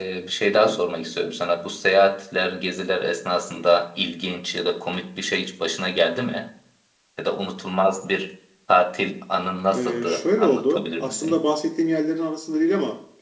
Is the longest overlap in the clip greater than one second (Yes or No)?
Yes